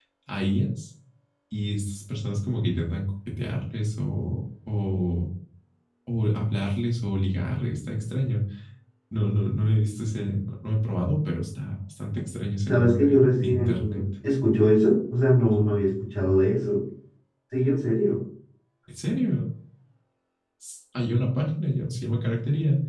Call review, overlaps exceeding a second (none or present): present